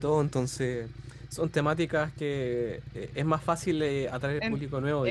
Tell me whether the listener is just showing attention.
No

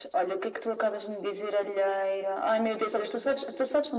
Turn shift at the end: No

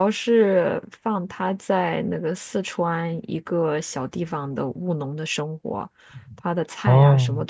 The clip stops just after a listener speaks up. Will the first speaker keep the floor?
Yes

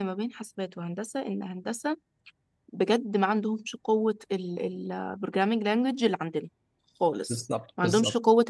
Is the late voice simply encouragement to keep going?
Yes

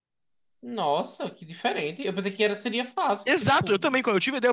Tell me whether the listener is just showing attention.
No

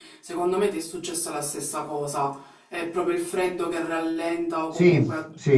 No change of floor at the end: Yes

